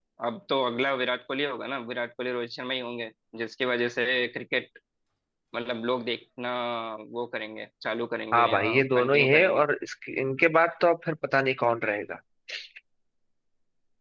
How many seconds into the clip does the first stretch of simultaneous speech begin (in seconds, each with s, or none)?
8.3 s